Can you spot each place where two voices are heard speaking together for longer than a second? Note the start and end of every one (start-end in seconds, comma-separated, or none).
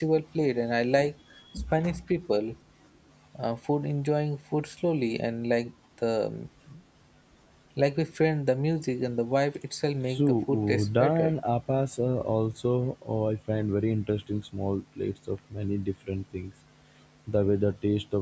10.1-11.3